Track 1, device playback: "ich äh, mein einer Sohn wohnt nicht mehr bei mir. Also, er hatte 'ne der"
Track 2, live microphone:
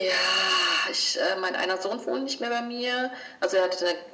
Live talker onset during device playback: none

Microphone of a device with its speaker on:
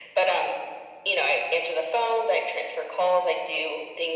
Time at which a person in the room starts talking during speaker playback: none

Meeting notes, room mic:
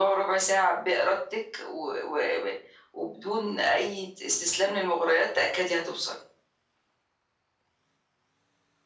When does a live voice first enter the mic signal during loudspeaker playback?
none

